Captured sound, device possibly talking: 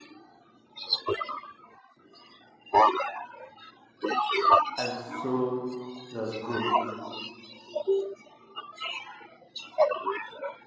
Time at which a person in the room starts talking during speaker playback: 4.8 s

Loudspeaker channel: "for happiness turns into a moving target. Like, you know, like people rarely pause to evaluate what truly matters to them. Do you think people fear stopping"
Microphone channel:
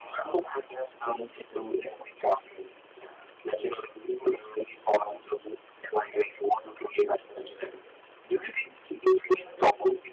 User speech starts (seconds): none

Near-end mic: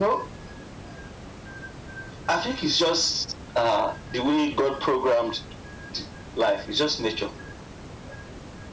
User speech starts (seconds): none

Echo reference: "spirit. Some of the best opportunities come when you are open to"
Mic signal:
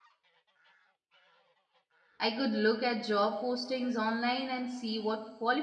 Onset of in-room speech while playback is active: 2.2 s

